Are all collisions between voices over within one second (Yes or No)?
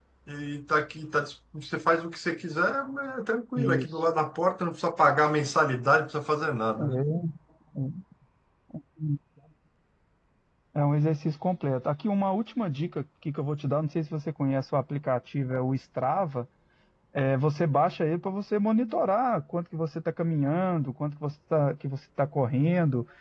Yes